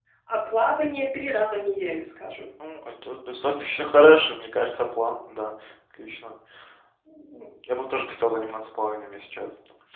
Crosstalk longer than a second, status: none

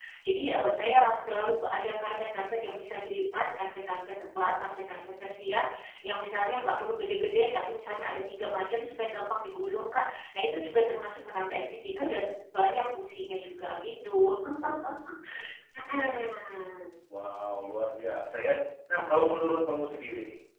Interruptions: none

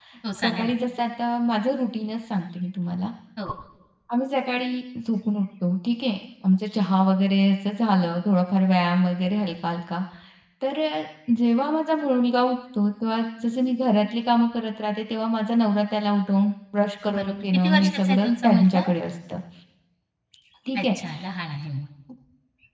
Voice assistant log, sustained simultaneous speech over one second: present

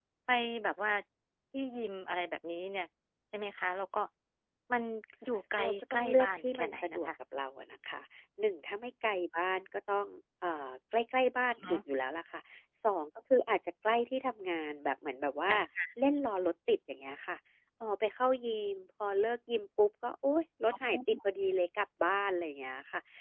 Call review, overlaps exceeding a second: present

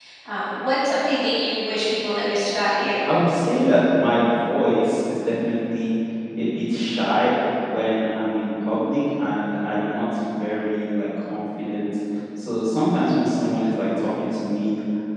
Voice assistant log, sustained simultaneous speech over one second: none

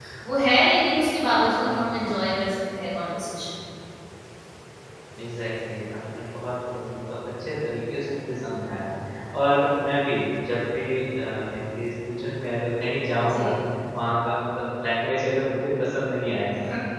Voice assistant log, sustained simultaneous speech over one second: none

